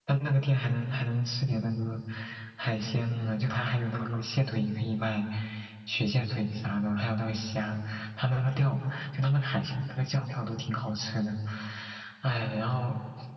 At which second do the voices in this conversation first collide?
none

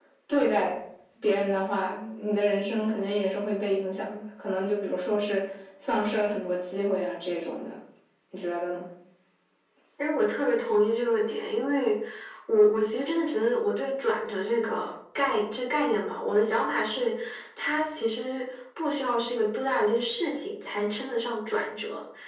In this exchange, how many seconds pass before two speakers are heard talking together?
none

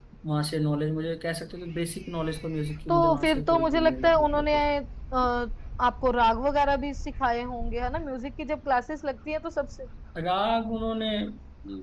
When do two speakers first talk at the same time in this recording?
2.9 s

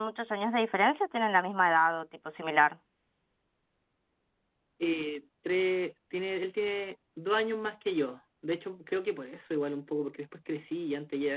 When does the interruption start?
none

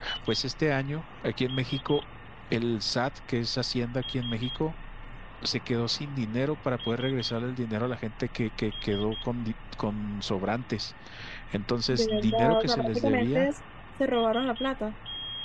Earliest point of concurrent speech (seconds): 11.9 s

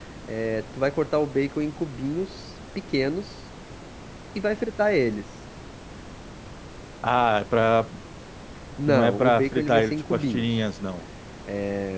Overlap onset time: 8.9 s

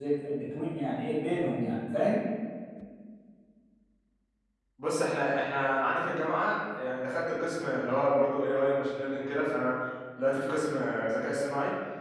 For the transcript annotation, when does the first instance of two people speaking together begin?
none

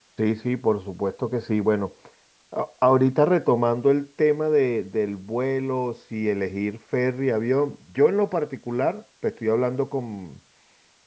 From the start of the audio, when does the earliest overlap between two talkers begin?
none

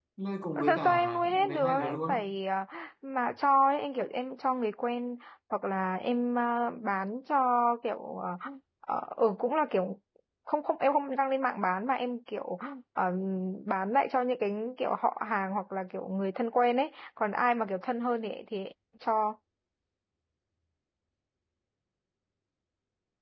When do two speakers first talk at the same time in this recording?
0.7 s

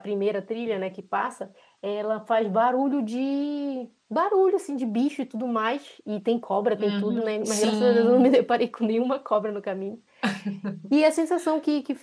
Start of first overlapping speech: 6.8 s

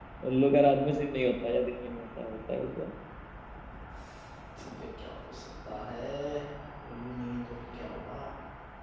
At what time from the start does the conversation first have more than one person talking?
none

